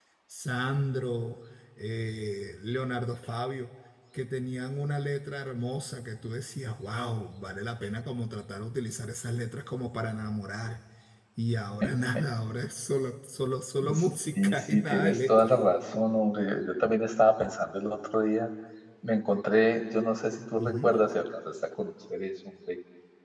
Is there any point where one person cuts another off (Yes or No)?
Yes